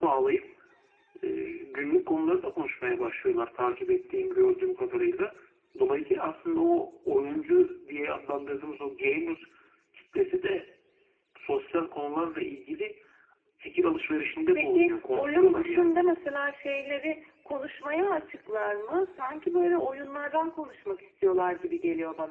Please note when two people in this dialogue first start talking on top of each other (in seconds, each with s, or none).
14.6 s